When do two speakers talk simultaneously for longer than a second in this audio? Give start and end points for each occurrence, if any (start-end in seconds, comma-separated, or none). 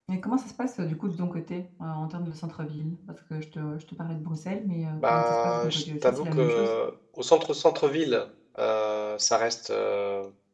5.0-6.7